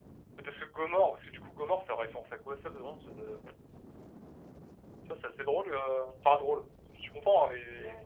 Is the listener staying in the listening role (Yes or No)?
Yes